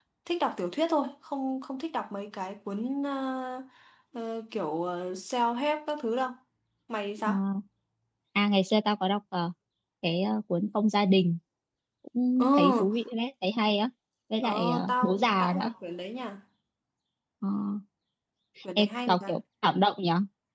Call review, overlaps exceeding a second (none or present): present